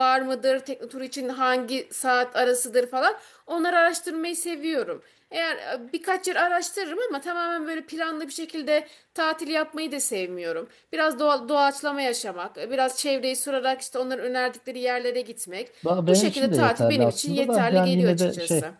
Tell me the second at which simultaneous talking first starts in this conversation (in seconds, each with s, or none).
15.8 s